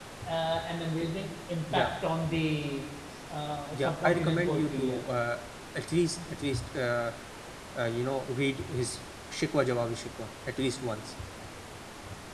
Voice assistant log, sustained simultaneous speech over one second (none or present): present